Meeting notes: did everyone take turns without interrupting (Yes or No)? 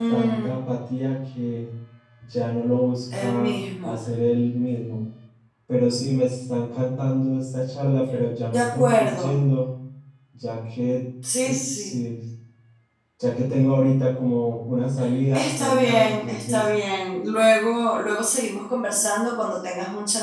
No